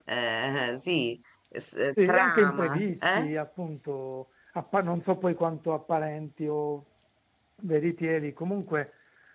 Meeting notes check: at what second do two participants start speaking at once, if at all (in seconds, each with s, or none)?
2.0 s